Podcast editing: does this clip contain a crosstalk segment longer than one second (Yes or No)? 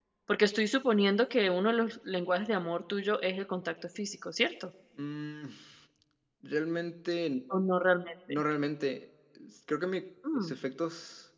No